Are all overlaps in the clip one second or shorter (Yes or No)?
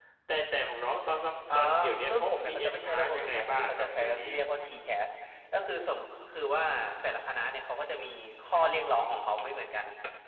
No